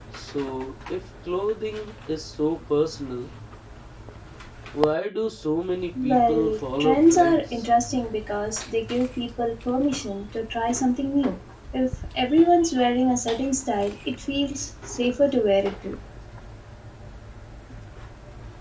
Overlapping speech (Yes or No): Yes